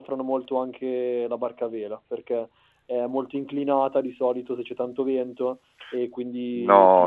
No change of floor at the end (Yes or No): No